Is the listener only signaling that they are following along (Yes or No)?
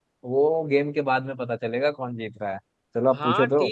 No